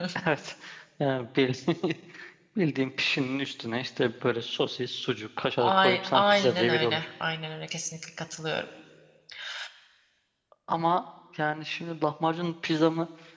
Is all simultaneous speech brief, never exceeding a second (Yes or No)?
No